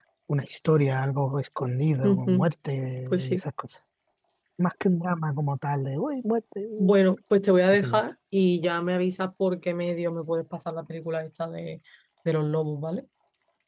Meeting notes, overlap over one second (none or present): none